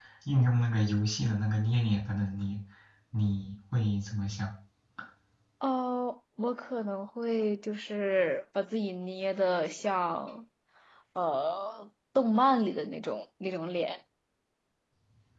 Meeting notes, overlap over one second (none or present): none